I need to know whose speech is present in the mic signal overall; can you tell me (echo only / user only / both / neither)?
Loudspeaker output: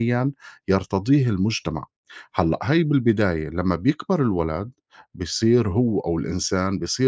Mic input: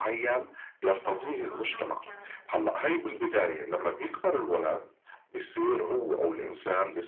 both